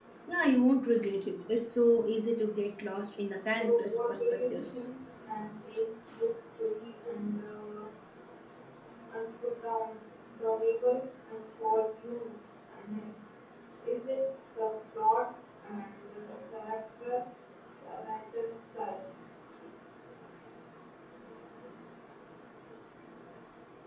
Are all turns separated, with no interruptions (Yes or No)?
No